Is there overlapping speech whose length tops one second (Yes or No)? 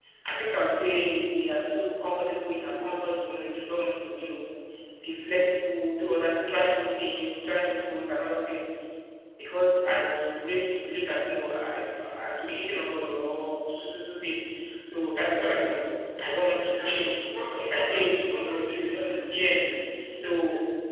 Yes